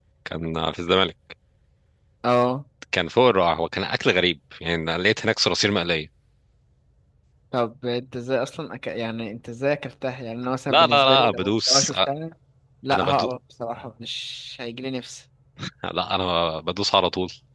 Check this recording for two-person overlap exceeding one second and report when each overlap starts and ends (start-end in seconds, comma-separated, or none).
10.7-12.0